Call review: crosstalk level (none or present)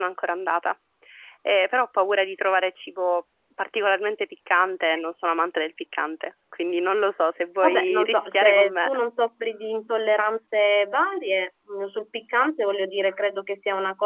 present